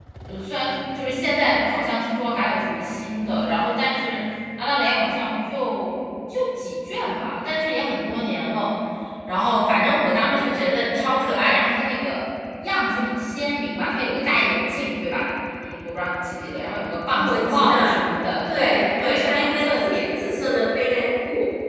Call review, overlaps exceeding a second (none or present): present